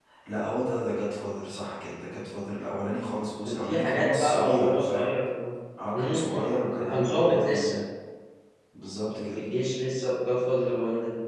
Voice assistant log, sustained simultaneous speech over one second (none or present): present